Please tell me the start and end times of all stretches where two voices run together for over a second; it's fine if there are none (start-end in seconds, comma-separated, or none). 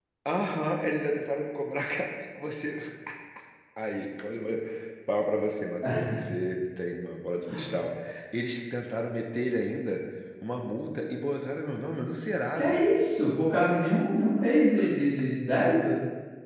none